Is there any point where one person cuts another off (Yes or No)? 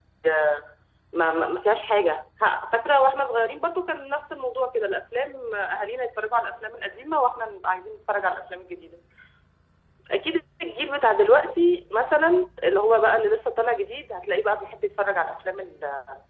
No